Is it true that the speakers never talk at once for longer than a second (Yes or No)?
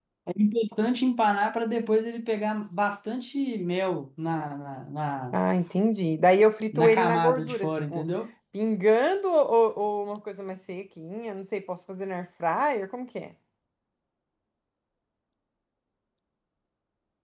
No